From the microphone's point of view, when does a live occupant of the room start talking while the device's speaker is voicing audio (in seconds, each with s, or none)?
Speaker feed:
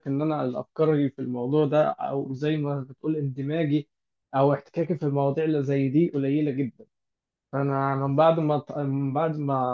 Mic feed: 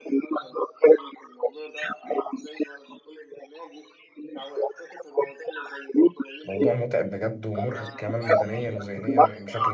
6.4 s